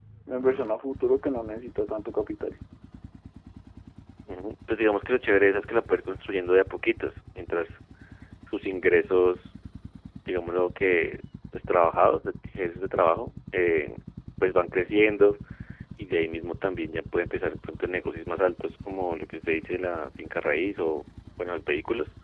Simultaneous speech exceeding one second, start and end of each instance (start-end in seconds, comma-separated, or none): none